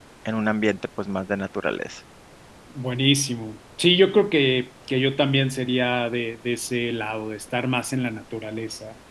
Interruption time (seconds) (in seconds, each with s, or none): none